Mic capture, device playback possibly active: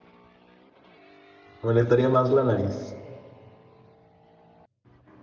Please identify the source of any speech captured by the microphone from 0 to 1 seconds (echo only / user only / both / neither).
neither